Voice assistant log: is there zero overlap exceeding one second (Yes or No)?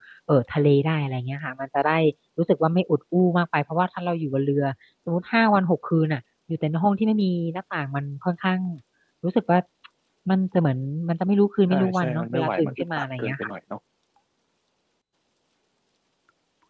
No